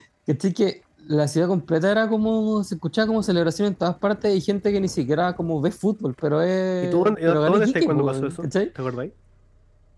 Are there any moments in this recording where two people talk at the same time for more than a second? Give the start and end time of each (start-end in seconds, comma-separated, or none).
6.8-8.5